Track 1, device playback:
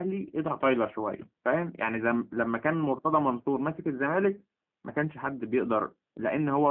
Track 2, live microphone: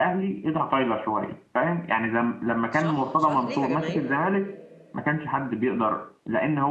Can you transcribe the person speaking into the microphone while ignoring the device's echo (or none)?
صح صح ليها جماهير